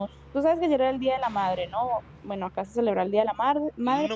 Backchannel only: No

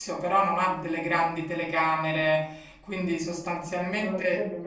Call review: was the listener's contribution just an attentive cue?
No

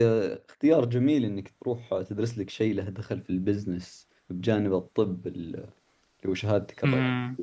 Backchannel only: No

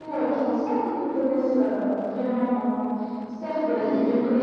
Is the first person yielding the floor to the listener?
No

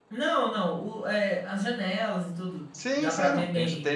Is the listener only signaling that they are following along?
No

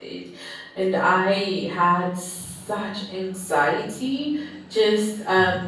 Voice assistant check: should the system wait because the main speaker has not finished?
Yes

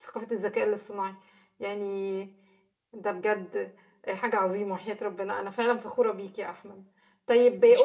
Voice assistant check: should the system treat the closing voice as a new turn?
No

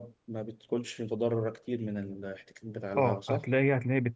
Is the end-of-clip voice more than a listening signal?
Yes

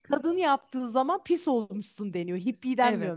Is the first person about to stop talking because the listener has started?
Yes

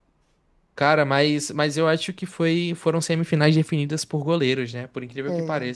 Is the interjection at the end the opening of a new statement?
Yes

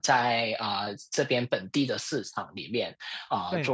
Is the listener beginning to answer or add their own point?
No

